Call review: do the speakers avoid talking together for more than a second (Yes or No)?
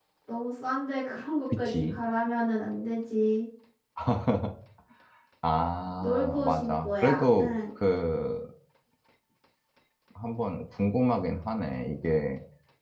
No